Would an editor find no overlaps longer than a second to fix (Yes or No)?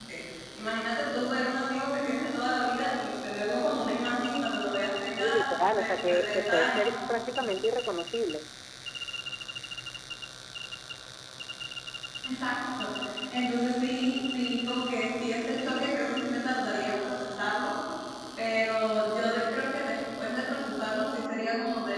No